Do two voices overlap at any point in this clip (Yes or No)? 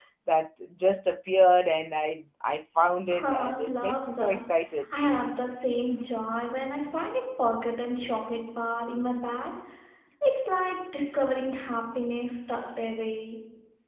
Yes